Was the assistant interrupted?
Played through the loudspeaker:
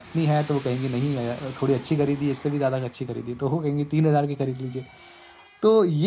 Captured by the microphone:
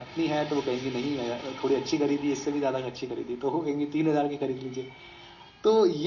No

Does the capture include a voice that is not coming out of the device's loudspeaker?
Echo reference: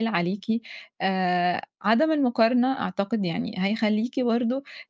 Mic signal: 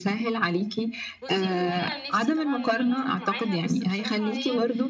Yes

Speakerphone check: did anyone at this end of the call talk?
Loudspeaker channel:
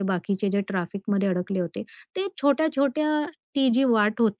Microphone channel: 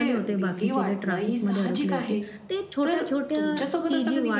Yes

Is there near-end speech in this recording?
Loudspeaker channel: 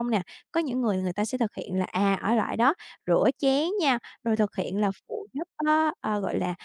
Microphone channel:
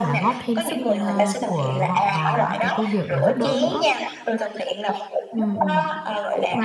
Yes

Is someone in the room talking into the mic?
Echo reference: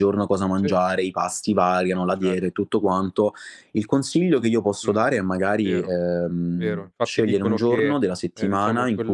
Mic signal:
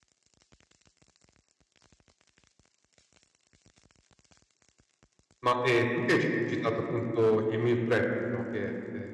Yes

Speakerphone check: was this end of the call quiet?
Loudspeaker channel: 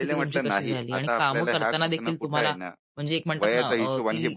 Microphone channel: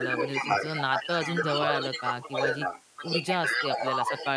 No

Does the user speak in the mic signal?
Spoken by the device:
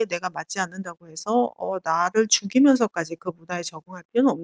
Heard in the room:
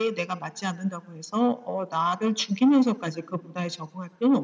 No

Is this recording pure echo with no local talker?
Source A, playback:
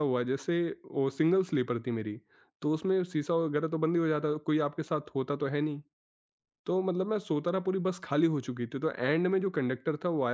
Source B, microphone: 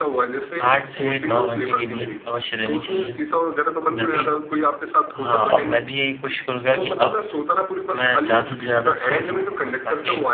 No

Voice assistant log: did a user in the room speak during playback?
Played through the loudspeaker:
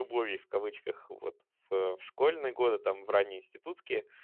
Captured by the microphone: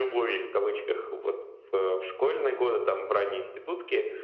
No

